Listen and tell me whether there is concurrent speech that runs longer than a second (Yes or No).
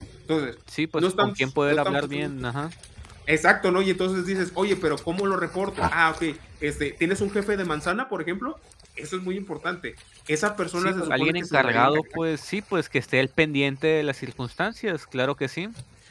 Yes